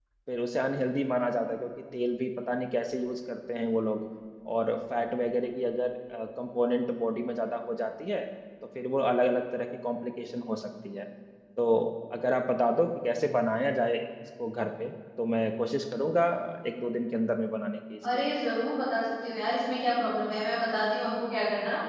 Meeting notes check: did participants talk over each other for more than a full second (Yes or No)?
No